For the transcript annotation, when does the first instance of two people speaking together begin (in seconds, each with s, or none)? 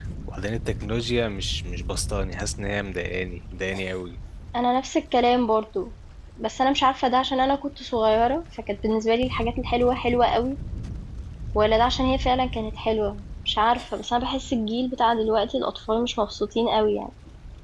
none